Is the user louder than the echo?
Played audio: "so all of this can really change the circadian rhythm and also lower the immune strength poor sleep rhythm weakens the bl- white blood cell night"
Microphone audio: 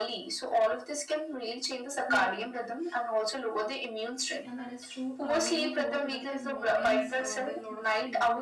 No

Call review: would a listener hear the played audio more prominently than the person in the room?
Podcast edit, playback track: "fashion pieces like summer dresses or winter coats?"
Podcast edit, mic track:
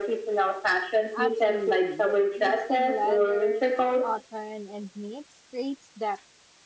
Yes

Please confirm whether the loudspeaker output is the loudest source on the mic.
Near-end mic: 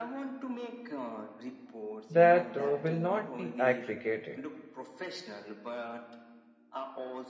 No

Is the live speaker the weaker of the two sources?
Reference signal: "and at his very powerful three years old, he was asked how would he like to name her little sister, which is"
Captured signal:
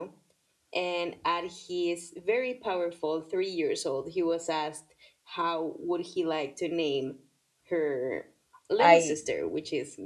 No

